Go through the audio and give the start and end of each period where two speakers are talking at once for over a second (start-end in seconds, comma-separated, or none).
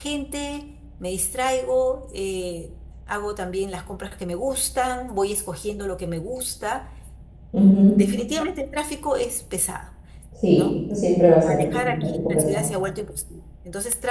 11.5-12.7